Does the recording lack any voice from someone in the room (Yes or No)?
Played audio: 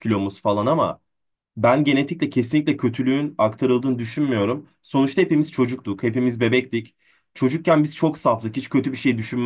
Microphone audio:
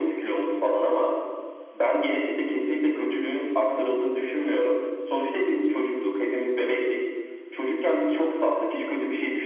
Yes